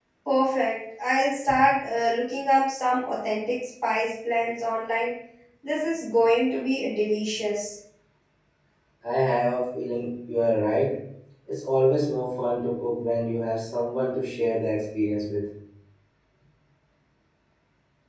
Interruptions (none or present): none